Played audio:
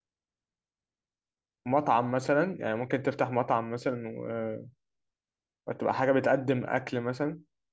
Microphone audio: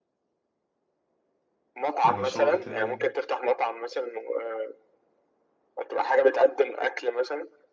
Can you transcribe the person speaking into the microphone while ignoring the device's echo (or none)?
المشروع بتاعي يعني